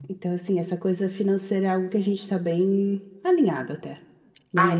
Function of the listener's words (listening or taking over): taking over